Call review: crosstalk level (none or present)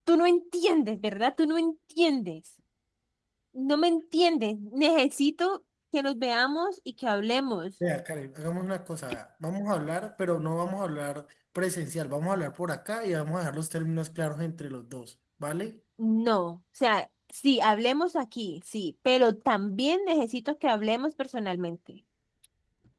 none